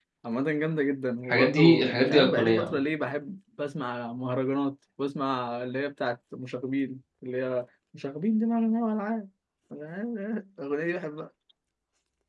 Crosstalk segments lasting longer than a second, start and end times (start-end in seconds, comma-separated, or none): 1.2-2.8